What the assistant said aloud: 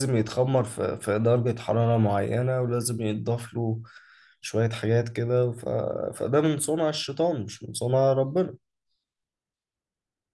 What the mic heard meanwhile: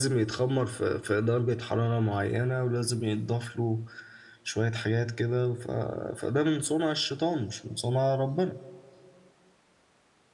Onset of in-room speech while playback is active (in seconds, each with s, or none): none